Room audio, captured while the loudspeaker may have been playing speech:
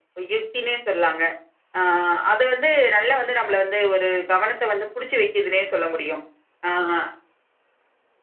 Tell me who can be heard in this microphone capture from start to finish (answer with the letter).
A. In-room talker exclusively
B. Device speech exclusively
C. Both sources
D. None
B